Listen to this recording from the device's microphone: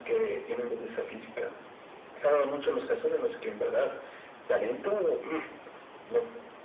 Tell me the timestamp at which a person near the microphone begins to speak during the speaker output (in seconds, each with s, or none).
none